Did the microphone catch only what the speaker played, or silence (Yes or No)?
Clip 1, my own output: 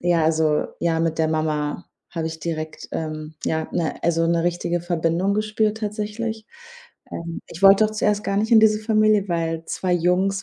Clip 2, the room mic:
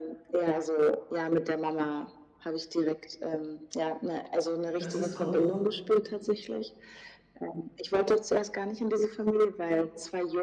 No